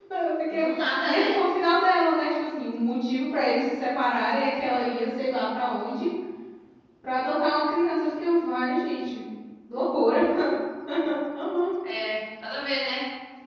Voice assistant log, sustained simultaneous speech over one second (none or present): none